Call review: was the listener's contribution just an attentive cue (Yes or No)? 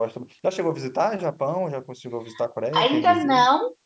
No